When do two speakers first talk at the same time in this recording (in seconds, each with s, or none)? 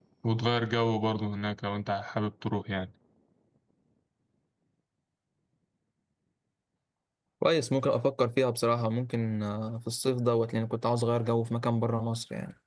none